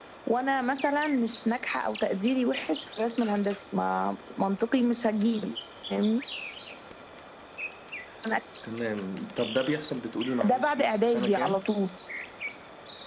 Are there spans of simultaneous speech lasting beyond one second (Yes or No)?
Yes